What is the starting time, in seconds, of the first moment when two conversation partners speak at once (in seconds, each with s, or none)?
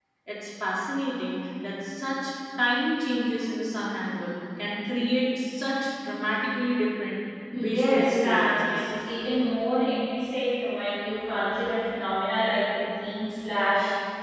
7.5 s